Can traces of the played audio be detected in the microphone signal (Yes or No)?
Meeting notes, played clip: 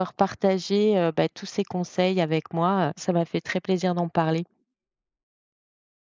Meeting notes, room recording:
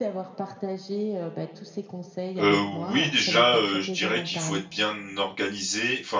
Yes